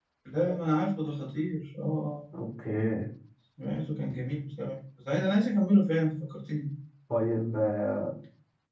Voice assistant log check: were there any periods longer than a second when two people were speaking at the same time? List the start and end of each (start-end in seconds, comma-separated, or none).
none